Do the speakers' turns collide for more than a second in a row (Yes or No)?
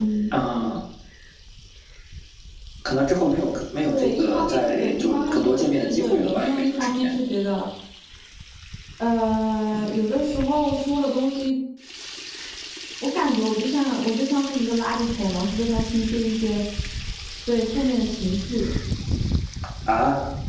Yes